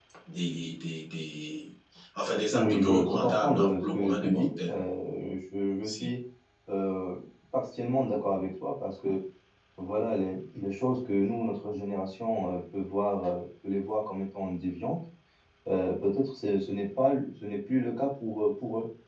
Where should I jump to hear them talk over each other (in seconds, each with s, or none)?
2.5 s